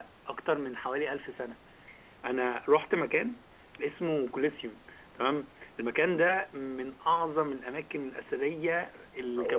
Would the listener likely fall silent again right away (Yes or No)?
Yes